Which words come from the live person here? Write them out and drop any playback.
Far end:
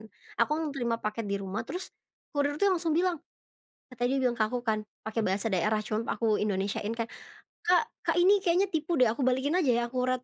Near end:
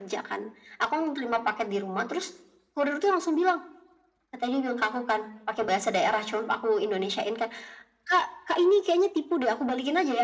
none

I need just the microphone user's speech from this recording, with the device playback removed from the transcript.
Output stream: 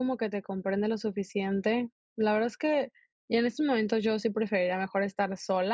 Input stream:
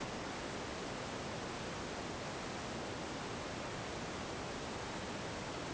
none

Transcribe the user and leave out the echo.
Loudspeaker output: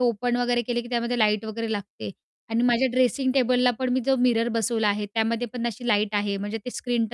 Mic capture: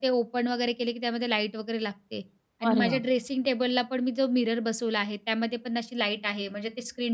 अरे वाह!

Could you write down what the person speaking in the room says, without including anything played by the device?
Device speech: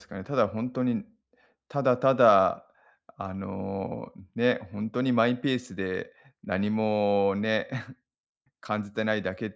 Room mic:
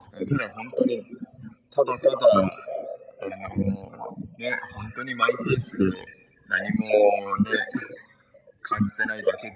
none

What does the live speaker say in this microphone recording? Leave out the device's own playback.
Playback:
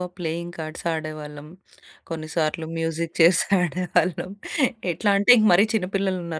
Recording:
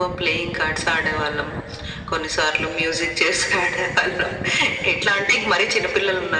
none

